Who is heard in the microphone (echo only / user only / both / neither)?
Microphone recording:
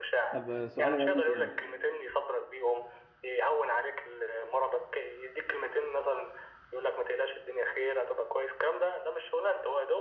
both